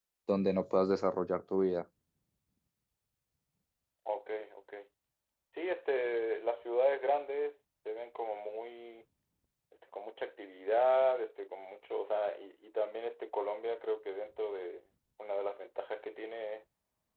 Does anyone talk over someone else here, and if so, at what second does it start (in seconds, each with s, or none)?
none